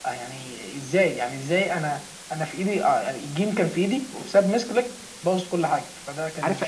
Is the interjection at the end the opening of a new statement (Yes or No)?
Yes